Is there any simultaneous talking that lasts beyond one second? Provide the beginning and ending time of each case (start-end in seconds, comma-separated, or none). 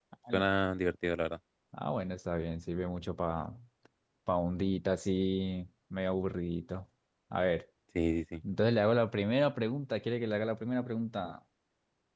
none